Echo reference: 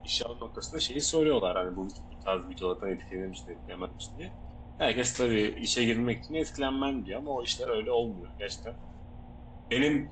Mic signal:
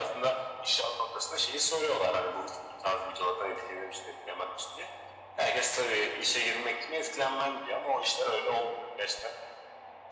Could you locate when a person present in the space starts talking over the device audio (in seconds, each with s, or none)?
none